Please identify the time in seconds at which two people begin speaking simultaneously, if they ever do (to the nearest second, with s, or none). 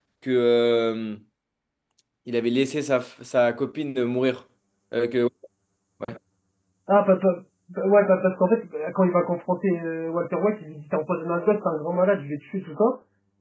none